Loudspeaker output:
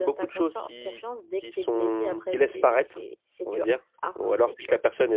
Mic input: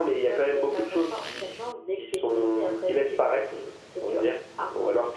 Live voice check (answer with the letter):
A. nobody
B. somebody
A